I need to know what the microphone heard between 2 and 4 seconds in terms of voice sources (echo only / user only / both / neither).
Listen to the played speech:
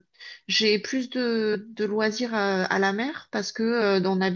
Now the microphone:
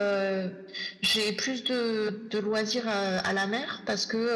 echo only